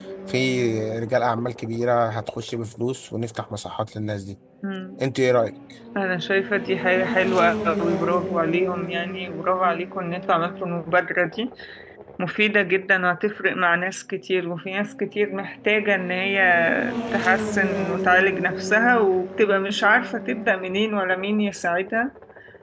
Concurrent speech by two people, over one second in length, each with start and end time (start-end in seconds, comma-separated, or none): none